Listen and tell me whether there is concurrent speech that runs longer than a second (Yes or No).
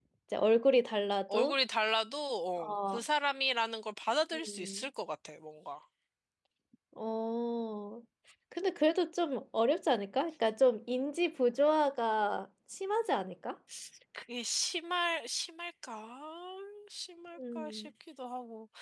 No